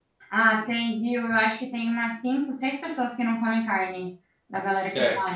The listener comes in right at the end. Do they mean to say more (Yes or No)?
Yes